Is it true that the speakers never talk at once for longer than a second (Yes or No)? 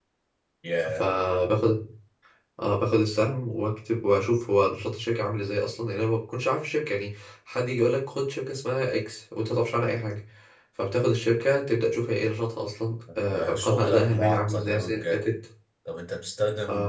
No